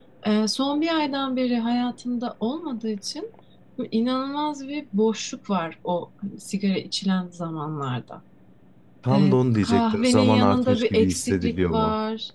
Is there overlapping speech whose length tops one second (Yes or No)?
Yes